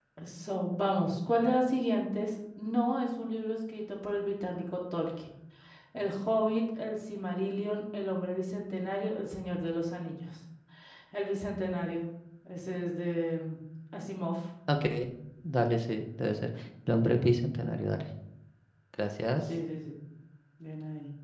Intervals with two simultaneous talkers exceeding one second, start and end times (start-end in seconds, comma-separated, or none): none